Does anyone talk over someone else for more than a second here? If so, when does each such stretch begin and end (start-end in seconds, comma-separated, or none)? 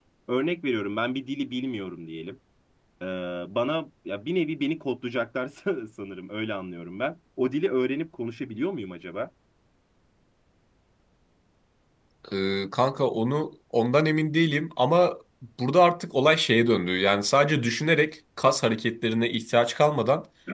none